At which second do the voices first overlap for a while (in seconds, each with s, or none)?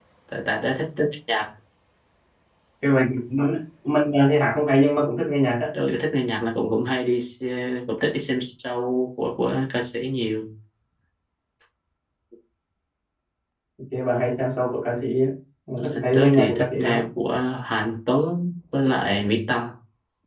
15.8 s